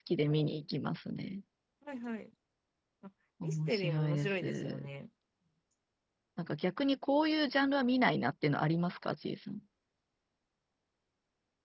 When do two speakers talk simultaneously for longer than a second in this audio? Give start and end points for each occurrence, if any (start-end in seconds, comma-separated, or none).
3.4-4.9